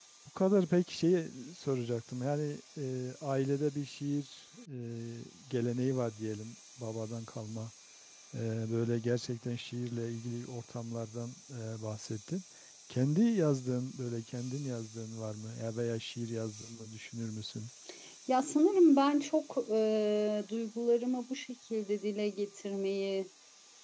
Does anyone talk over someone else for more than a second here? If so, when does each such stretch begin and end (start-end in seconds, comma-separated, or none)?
none